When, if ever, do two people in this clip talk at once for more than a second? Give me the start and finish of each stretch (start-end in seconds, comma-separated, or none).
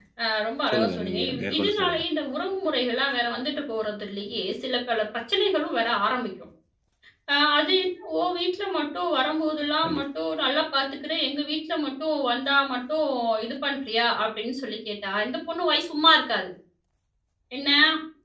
0.7-2.0